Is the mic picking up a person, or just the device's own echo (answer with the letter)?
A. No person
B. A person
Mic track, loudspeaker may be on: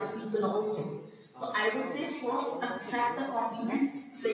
B